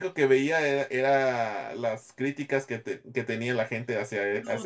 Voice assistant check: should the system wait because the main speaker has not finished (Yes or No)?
No